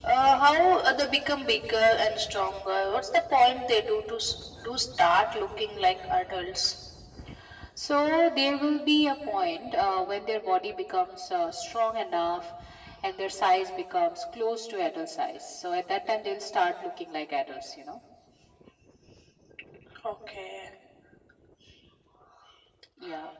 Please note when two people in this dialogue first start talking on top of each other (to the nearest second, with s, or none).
none